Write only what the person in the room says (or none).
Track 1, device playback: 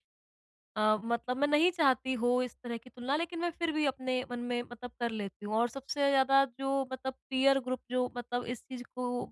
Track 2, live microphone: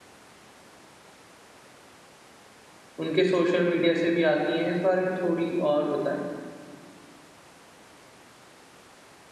उनके सोशल मीडिया से भी आती हैं? इस बारे में थोड़ी और बताएँ।